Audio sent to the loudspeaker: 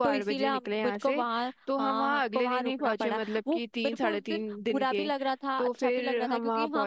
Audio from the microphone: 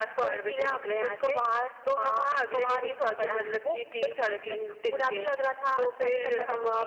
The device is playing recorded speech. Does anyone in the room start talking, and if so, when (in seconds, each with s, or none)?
3.2 s